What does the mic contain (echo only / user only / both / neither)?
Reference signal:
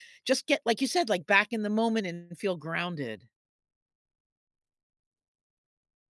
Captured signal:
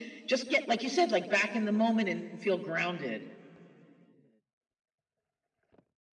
echo only